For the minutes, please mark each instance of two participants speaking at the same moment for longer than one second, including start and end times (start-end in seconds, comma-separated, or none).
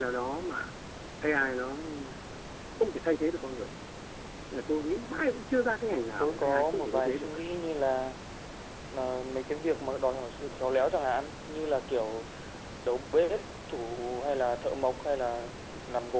6.2-7.4